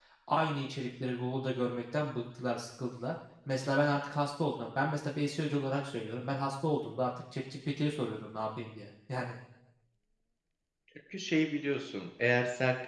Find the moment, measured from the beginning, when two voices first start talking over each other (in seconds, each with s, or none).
none